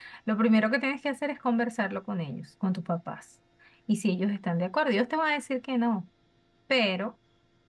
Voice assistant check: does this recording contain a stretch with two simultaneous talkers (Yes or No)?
No